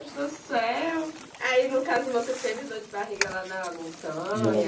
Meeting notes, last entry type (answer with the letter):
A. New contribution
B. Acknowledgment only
A